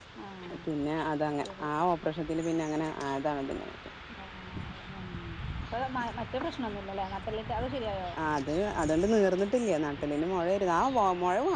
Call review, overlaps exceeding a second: none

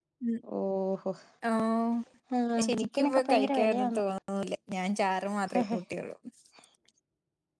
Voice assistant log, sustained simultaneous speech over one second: present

